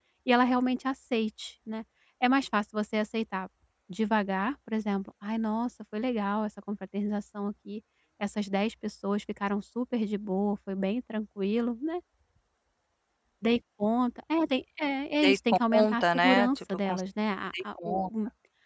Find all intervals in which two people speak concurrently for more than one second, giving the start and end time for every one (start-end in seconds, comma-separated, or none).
15.2-17.0